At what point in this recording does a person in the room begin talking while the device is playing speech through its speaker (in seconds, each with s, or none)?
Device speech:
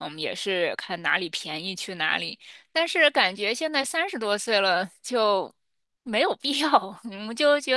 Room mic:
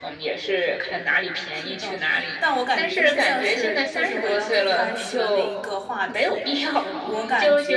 1.5 s